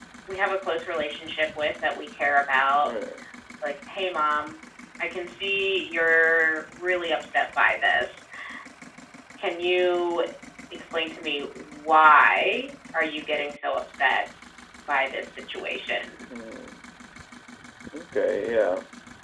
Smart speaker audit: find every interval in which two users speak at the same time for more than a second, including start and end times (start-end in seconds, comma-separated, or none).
none